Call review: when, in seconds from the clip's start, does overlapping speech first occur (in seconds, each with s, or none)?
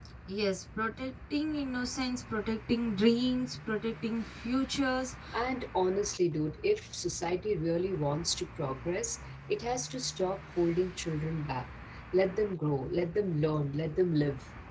none